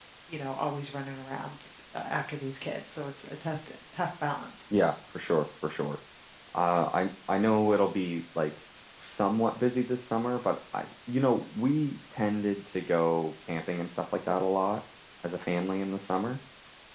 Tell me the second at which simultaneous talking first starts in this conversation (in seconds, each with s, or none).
none